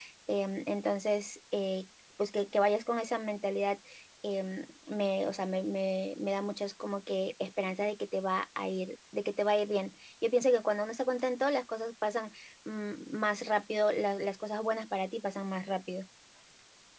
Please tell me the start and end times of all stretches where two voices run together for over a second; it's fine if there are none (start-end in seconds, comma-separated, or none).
none